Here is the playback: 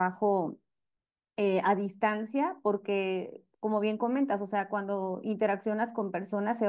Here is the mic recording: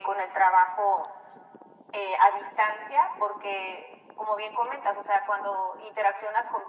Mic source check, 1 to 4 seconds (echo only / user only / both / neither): echo only